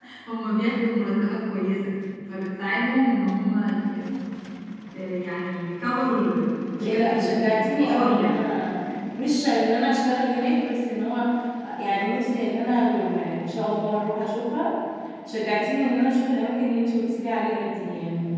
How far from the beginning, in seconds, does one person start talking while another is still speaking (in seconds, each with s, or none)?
6.8 s